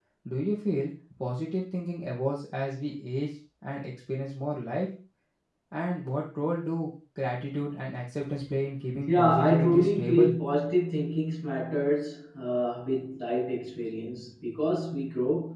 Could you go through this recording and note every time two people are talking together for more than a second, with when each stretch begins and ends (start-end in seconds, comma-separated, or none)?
9.1-10.3